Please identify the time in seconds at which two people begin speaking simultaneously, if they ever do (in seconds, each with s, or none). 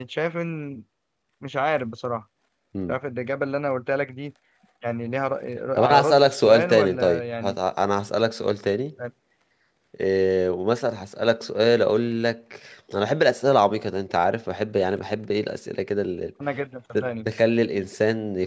5.7 s